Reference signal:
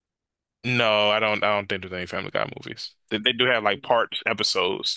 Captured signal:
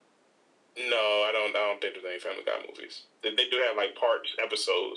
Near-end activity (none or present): none